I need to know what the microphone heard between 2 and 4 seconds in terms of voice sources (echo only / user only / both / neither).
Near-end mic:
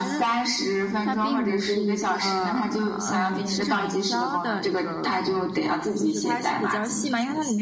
both